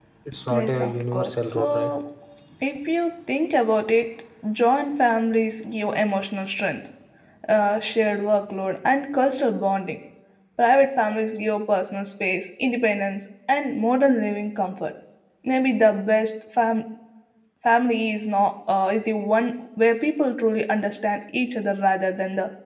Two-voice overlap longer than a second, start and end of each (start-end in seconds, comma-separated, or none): 0.5-1.9